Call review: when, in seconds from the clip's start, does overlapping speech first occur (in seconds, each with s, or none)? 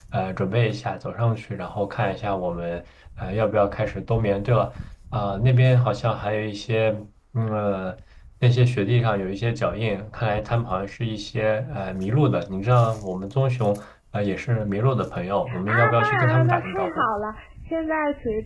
15.5 s